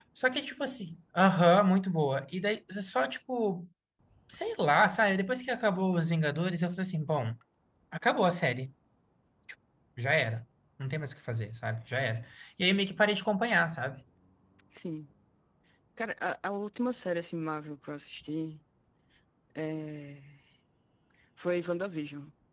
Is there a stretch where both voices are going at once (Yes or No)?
No